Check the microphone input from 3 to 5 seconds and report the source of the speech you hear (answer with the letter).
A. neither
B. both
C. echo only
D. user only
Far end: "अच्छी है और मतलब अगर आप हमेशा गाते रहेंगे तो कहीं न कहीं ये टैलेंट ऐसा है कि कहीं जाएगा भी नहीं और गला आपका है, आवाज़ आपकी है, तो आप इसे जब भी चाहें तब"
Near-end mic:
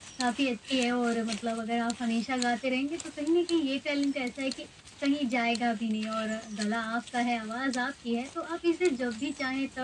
C